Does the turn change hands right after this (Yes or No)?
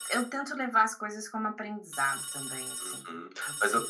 Yes